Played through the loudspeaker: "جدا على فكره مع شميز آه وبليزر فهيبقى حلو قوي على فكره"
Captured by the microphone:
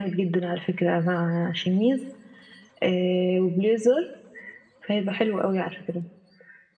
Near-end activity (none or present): none